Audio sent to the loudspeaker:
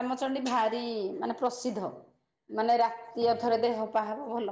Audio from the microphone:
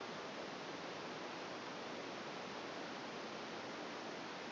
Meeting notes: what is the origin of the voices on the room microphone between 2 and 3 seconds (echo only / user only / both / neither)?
neither